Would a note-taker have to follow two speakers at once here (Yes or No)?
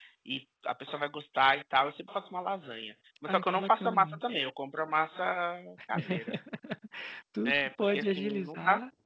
Yes